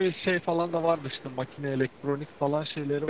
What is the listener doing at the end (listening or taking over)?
taking over